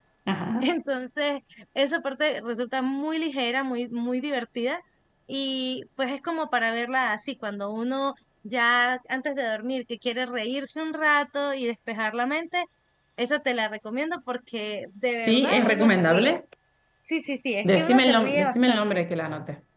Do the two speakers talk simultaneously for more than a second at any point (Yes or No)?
Yes